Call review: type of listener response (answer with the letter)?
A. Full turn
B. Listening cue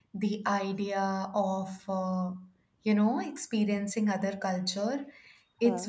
B